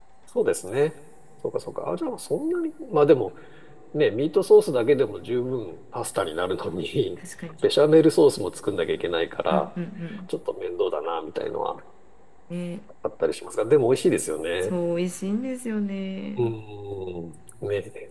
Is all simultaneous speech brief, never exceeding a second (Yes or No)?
Yes